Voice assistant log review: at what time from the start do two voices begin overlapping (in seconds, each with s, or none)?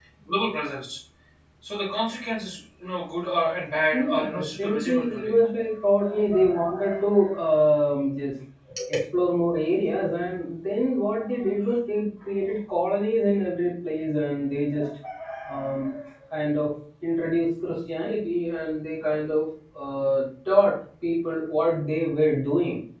3.9 s